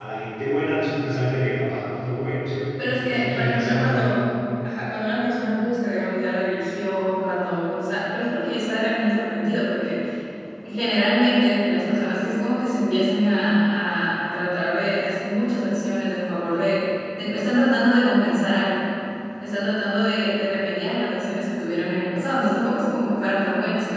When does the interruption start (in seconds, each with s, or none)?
2.8 s